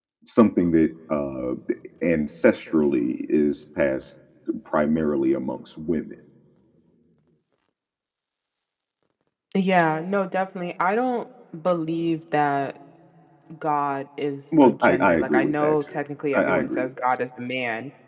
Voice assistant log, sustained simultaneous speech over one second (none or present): present